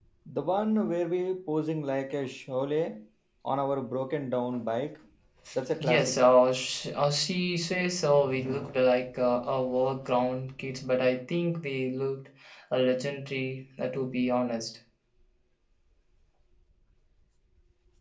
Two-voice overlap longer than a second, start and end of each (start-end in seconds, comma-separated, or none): none